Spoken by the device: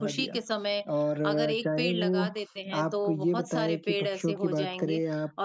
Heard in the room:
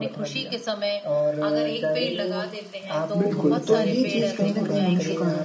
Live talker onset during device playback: 3.2 s

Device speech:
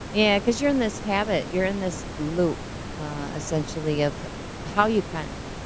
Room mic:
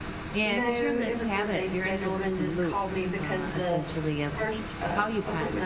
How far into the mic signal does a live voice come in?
0.4 s

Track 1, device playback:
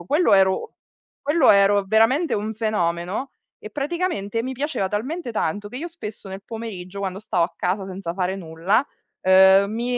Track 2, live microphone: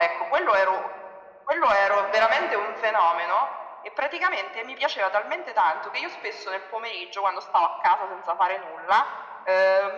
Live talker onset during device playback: none

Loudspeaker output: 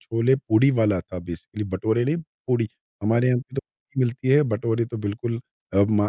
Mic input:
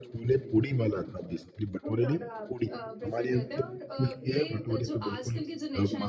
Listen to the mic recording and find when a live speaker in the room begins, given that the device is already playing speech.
1.8 s

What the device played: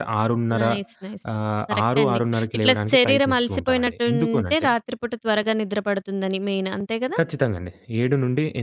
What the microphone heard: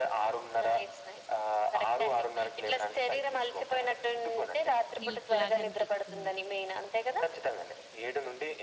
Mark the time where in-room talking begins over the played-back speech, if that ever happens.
5.0 s

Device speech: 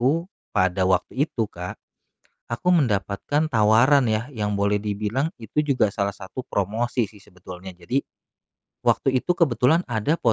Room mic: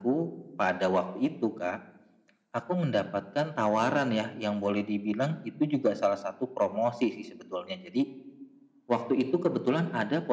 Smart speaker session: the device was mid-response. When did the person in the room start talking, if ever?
none

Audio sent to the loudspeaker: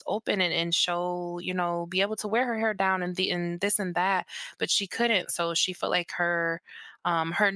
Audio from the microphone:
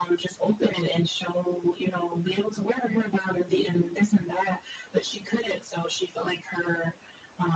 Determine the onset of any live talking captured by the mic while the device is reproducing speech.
none

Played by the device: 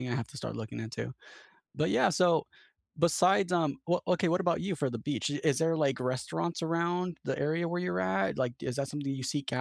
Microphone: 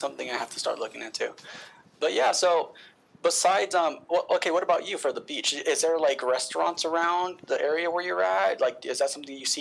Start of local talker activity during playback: none

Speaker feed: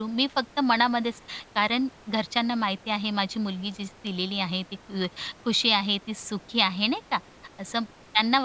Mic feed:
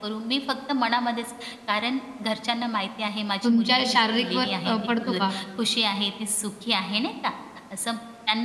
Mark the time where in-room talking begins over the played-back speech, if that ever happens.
3.4 s

